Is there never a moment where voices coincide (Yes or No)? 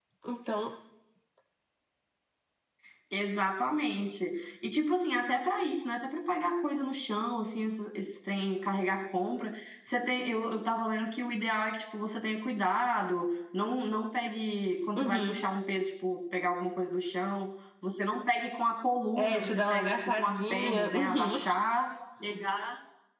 No